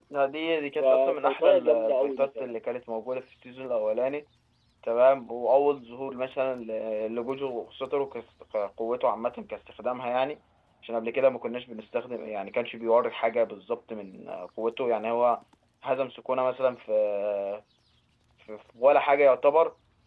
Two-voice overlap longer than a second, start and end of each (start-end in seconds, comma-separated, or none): 0.8-2.6